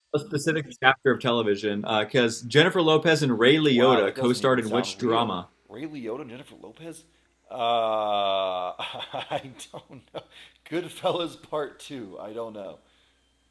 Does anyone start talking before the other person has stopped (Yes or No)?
Yes